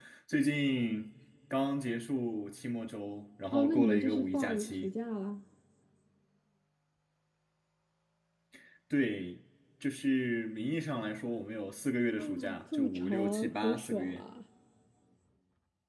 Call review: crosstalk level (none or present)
present